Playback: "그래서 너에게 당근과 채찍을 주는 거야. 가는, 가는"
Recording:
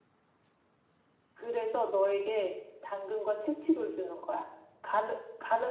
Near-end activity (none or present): none